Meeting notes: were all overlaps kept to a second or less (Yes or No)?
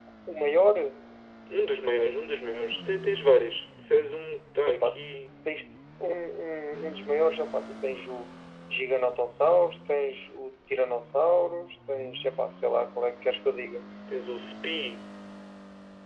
Yes